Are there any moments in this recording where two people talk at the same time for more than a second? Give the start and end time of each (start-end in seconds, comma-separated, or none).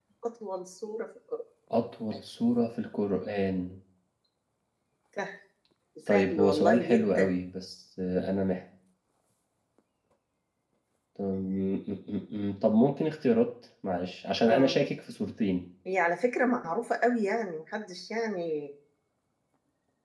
6.1-7.3